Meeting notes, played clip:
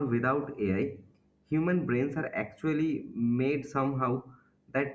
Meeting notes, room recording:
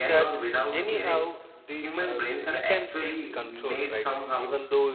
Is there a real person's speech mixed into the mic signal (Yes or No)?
Yes